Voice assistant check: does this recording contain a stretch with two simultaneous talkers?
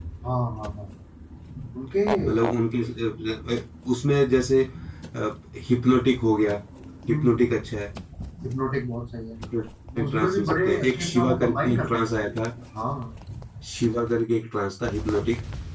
Yes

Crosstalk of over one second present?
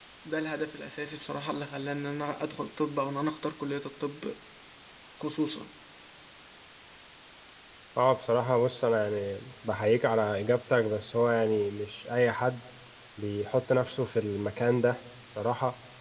No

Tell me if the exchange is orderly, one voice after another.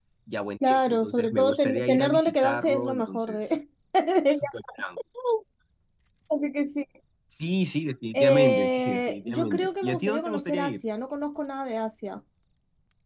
No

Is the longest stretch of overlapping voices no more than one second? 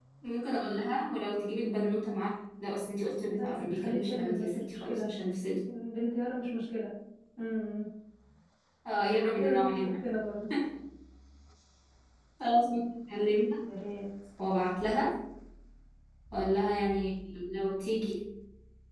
No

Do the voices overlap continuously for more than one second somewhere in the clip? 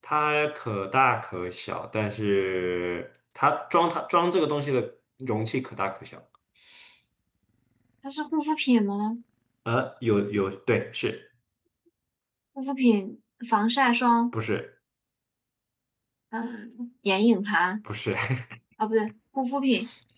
No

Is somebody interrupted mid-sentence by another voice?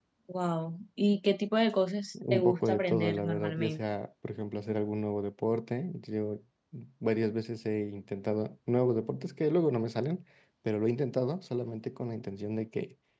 Yes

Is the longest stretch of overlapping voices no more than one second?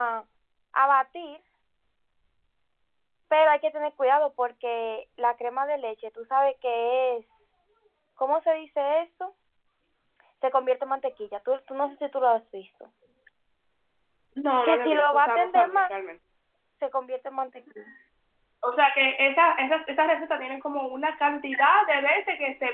No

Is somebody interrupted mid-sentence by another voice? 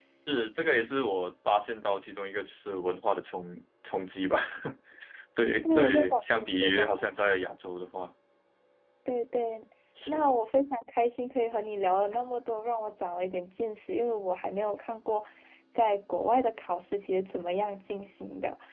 Yes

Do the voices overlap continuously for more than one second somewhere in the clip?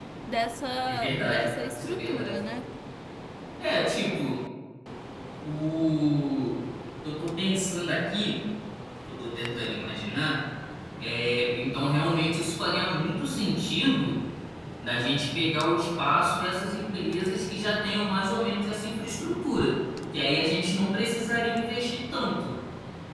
Yes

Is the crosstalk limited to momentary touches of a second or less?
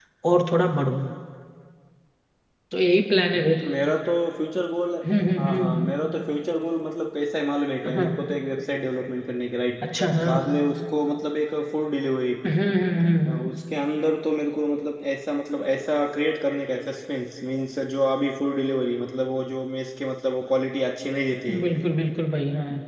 Yes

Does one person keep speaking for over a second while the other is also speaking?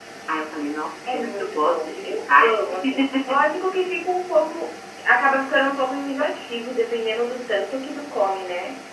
Yes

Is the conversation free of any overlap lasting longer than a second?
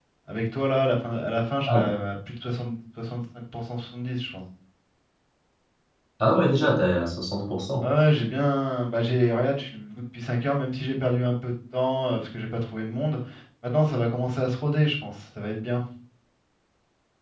Yes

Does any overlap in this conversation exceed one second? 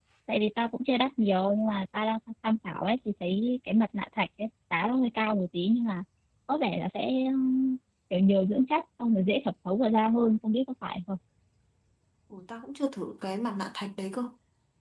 No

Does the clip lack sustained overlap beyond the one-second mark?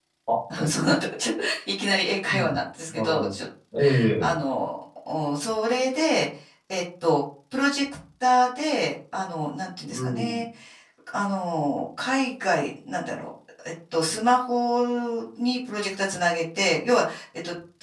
Yes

